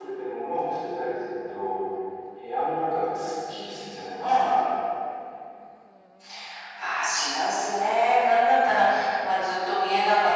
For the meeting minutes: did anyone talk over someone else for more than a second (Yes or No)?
No